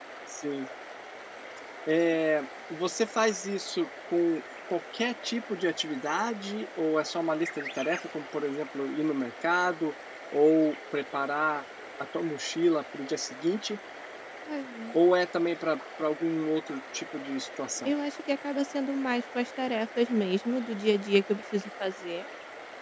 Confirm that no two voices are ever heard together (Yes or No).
Yes